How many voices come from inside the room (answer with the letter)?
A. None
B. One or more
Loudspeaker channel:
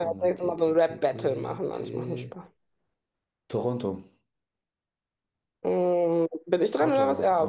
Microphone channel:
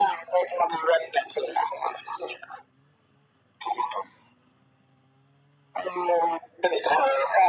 A